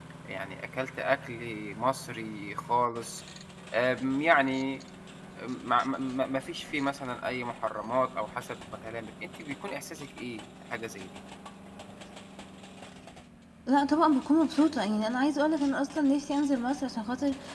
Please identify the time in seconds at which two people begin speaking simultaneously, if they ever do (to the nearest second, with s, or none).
none